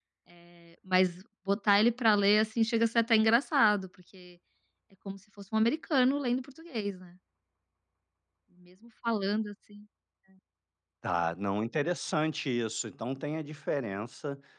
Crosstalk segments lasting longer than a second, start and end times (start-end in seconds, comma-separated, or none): none